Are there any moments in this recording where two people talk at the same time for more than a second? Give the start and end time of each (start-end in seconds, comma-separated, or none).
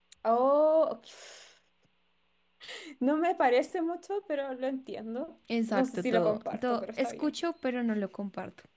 5.7-7.3